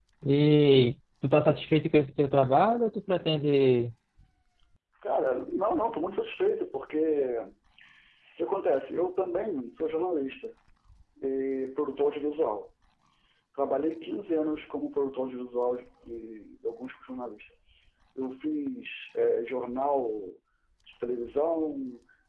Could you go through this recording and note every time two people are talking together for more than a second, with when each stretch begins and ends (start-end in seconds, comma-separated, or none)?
none